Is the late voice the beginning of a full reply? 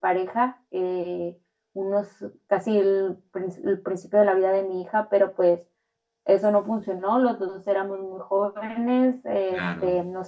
No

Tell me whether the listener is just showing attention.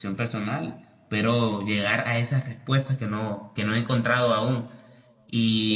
Yes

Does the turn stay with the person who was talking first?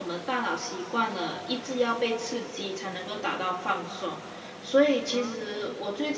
Yes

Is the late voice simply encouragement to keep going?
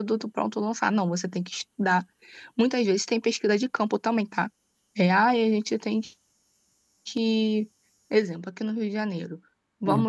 Yes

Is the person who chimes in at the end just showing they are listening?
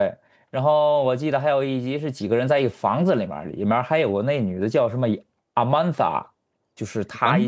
Yes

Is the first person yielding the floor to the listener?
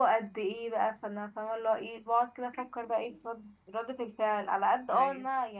No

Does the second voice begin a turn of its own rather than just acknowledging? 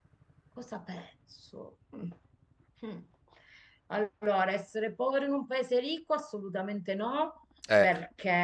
No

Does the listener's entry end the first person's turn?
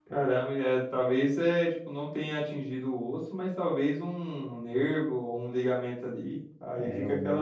Yes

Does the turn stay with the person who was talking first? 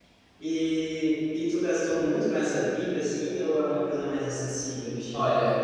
No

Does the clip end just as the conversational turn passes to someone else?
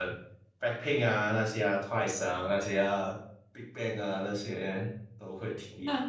Yes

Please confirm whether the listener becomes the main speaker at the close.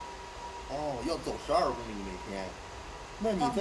Yes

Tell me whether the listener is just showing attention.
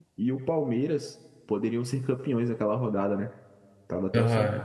No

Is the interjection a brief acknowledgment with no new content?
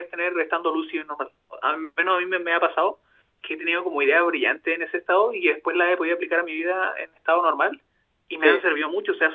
Yes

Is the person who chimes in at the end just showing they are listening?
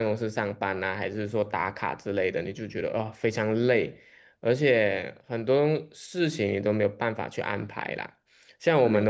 Yes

